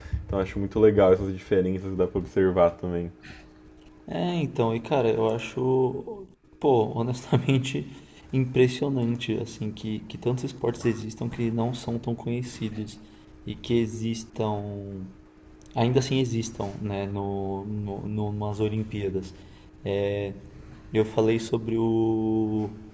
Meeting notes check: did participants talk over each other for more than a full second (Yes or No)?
No